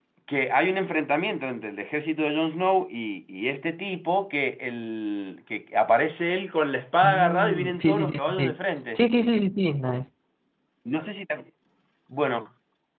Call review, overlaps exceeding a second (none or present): present